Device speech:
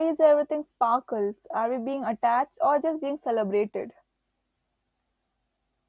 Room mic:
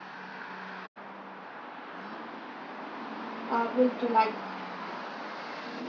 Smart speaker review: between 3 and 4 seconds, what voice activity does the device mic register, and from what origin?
user only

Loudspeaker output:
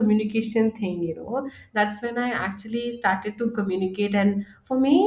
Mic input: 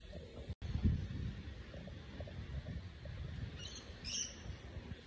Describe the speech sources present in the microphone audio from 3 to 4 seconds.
neither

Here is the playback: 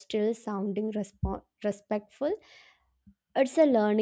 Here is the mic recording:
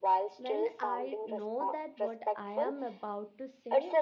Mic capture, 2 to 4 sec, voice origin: both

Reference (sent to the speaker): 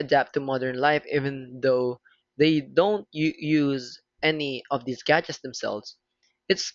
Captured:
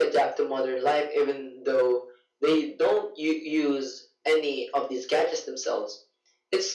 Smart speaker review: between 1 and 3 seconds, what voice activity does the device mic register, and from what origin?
echo only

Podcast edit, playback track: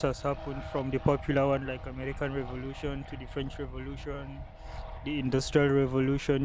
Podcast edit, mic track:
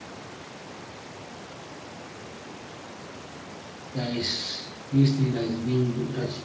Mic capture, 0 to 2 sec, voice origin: neither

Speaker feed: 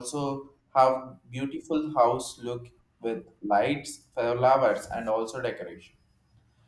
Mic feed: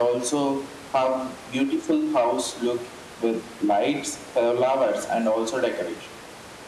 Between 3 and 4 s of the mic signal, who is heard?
echo only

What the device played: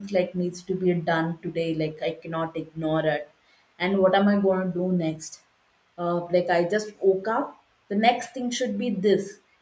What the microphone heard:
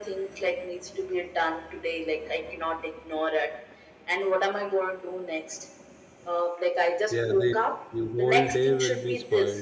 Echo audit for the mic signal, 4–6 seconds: echo only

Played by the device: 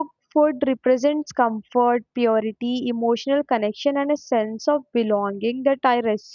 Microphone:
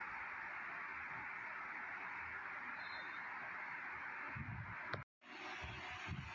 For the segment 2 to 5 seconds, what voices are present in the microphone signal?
neither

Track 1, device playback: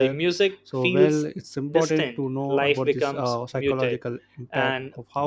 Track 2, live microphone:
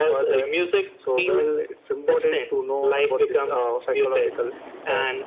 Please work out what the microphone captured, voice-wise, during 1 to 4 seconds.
echo only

